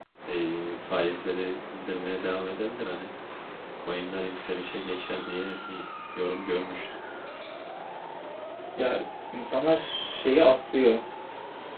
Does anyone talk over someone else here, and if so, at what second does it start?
none

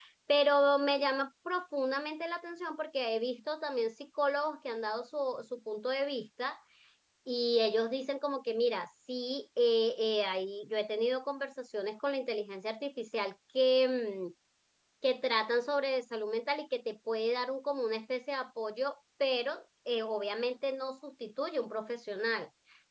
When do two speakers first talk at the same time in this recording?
none

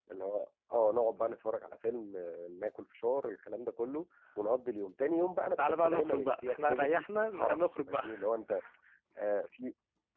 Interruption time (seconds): 5.6 s

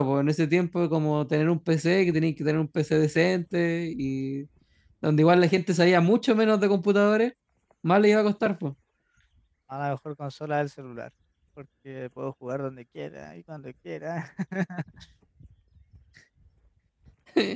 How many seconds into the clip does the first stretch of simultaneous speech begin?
none

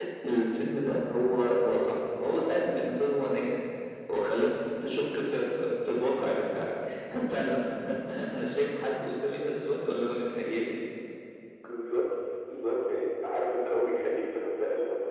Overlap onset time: none

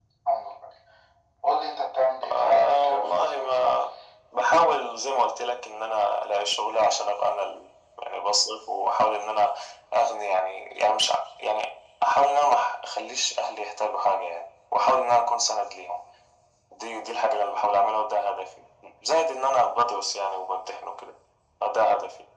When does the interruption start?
2.3 s

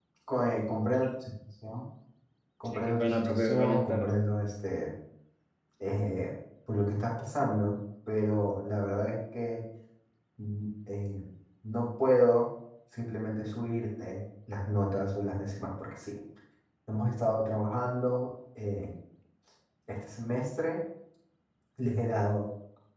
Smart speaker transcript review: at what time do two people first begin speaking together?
2.7 s

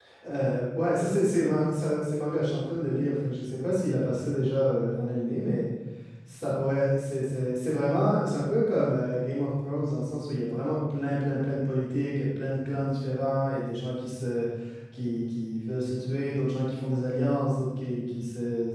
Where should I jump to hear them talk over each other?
none

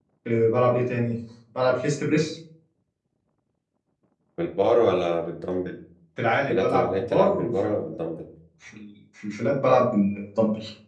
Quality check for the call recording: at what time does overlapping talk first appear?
6.5 s

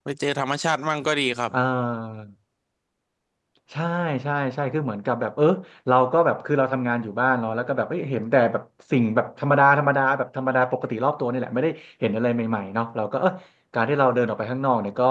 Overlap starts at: none

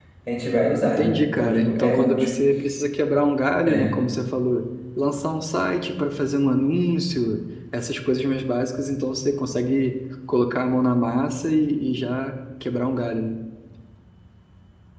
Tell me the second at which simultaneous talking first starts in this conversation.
0.8 s

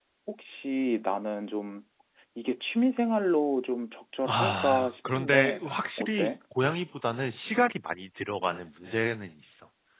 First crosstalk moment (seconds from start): 4.2 s

